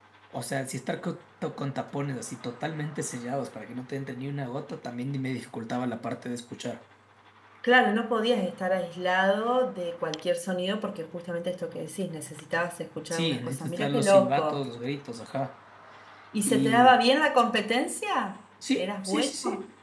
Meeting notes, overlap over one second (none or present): present